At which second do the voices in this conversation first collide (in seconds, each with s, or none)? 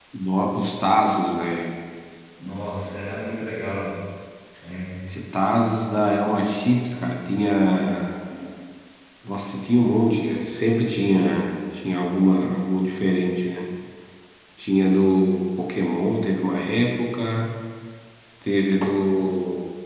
none